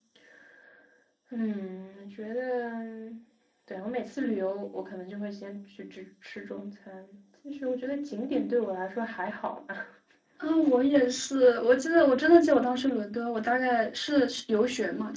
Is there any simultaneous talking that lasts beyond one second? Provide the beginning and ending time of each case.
none

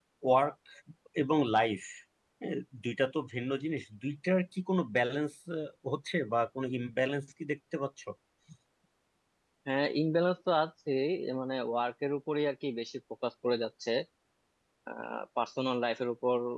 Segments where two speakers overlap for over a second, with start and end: none

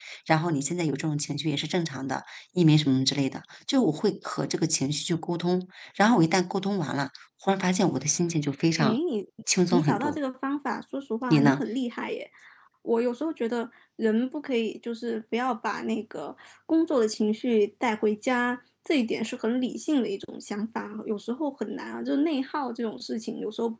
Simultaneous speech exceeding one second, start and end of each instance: none

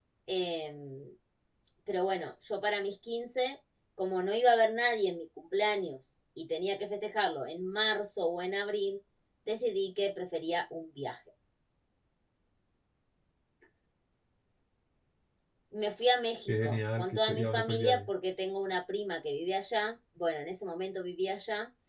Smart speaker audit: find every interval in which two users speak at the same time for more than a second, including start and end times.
16.5-18.1

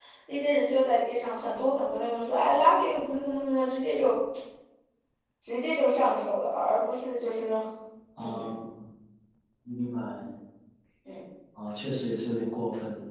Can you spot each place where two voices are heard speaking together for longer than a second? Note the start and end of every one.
none

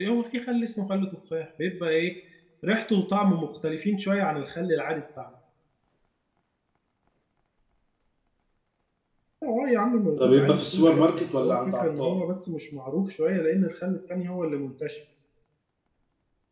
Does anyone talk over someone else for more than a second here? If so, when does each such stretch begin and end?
10.2-12.2

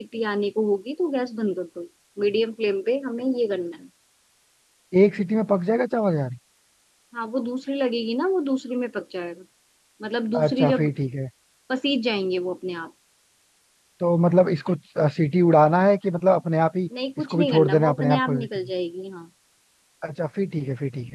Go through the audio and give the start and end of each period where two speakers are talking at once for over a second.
17.2-18.5

